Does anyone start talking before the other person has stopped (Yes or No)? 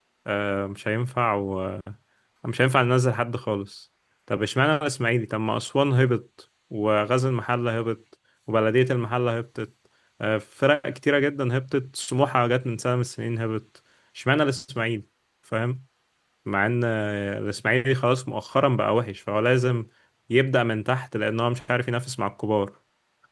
No